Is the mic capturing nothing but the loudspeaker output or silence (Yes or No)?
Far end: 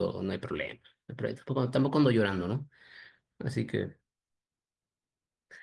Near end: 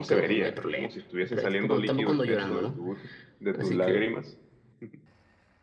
No